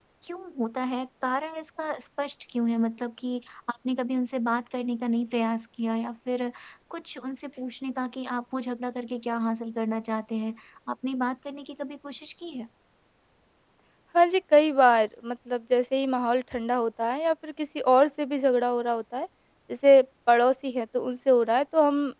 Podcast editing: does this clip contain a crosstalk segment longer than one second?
No

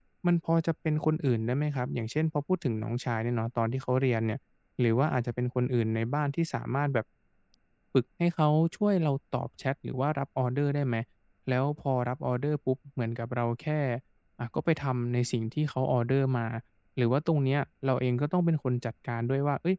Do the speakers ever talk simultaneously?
No

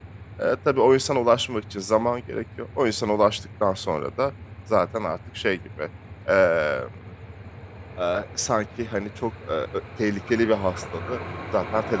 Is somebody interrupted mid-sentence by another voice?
No

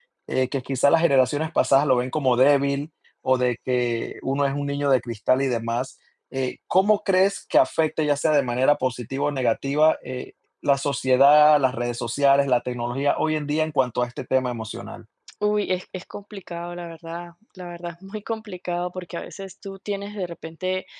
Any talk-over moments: No

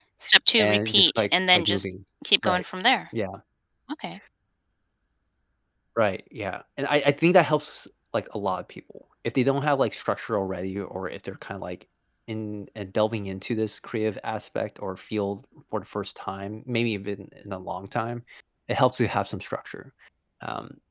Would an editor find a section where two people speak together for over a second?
Yes, from 0.6 s

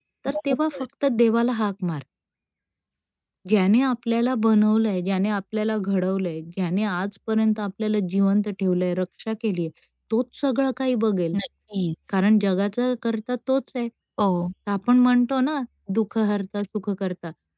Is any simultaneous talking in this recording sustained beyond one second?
No

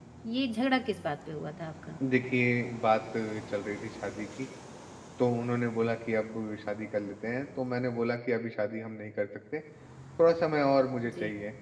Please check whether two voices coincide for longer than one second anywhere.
No

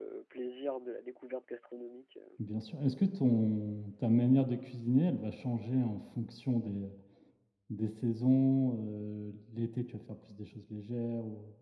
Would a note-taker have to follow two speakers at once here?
No

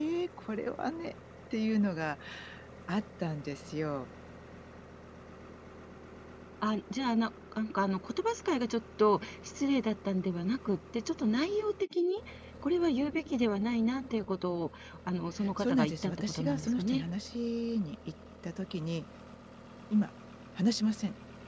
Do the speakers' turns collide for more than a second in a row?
Yes, from 15.6 s

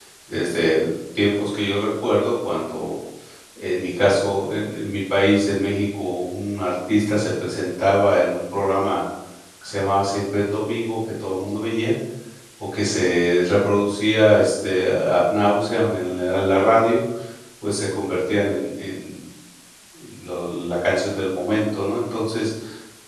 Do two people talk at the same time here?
No

